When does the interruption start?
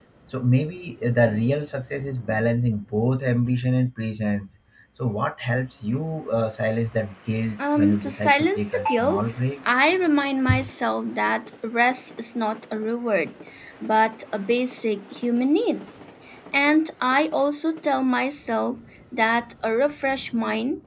7.6 s

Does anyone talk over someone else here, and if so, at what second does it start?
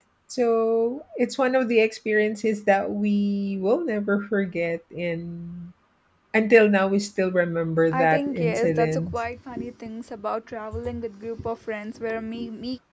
7.9 s

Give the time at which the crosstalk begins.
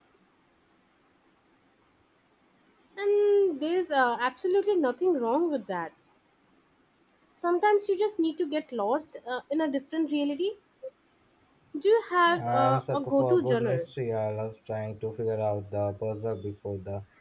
12.3 s

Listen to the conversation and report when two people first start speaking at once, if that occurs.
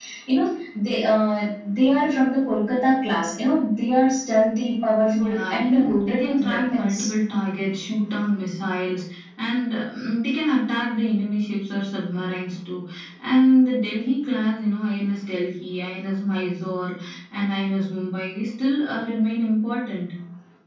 5.1 s

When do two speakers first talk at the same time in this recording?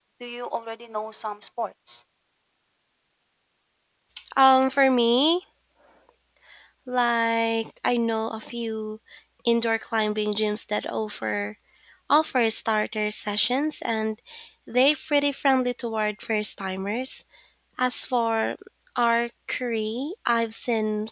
none

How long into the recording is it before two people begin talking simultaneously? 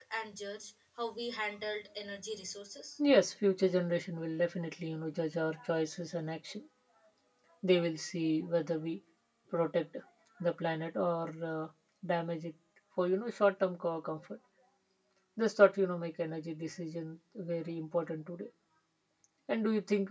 none

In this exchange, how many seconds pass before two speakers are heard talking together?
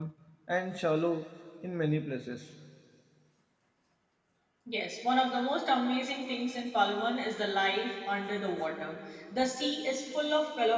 none

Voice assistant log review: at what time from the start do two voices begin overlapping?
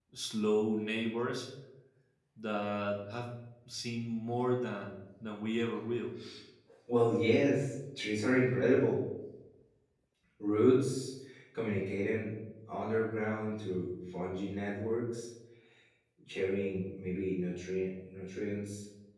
none

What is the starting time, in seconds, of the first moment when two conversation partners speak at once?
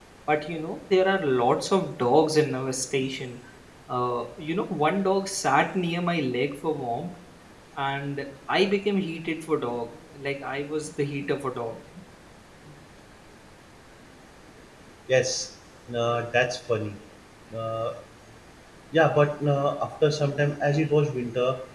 none

